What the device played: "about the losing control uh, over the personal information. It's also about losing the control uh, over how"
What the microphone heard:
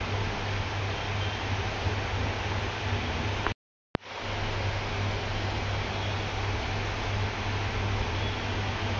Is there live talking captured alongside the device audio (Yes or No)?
No